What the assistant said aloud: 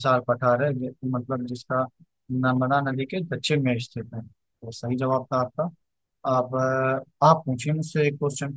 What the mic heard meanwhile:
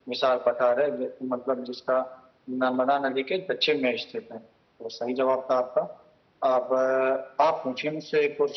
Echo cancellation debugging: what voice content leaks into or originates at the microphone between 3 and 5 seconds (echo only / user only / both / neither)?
echo only